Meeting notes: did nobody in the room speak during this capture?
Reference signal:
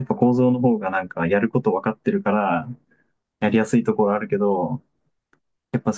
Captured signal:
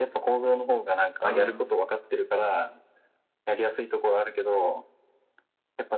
No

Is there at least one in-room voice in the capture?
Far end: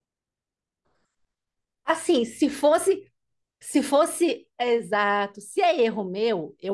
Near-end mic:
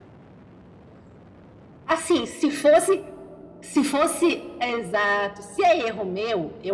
No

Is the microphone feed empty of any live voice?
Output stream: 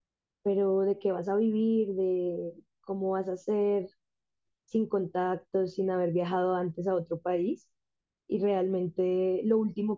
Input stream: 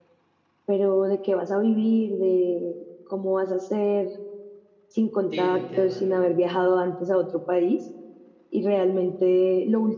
No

